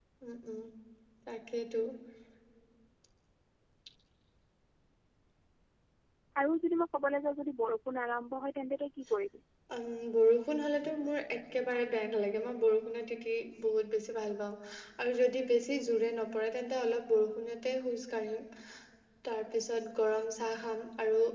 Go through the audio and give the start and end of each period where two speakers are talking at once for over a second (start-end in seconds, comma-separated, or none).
none